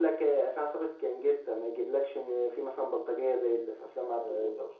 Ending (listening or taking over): taking over